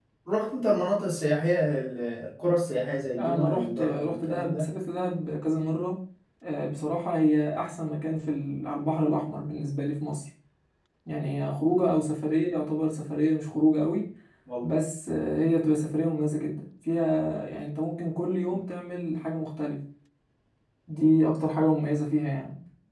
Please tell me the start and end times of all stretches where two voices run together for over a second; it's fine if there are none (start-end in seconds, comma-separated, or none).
3.2-4.7